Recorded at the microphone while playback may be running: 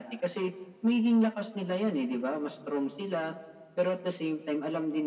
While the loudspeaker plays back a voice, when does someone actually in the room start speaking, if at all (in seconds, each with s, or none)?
none